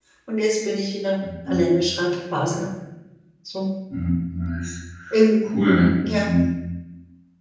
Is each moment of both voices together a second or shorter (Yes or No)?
Yes